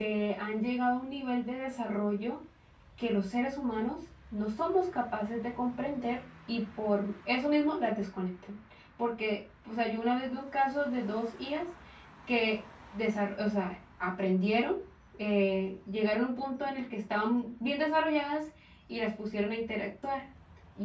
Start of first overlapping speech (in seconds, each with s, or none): none